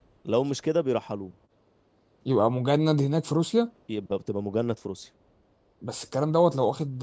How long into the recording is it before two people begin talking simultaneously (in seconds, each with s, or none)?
none